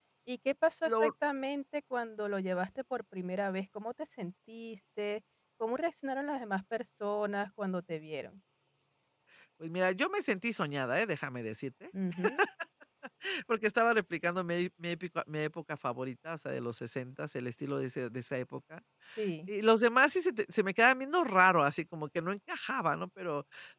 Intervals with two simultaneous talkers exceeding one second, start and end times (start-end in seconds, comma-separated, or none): none